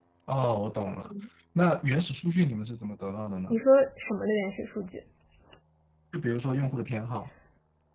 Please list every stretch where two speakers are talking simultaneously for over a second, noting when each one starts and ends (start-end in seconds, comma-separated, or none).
none